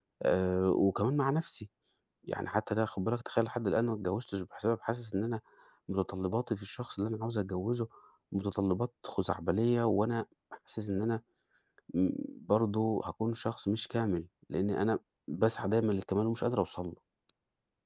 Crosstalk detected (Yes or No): No